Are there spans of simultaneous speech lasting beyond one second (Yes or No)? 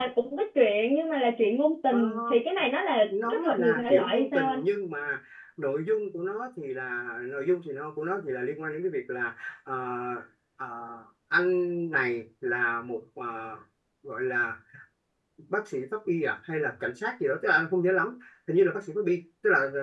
Yes